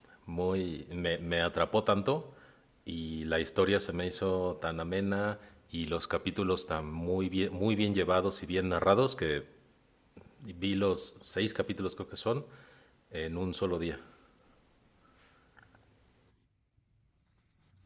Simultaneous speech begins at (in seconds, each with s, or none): none